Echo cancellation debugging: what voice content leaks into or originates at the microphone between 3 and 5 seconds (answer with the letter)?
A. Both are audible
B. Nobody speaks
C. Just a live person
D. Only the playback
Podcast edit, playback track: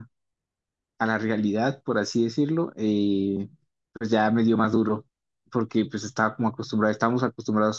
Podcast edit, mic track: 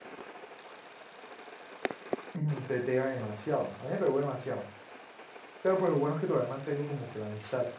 C